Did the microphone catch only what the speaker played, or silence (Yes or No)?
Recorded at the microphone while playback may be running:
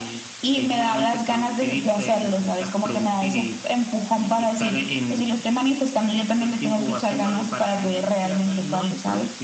Yes